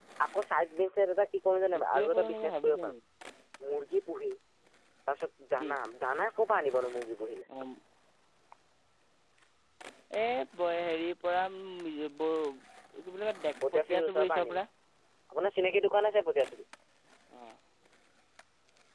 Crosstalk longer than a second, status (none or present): present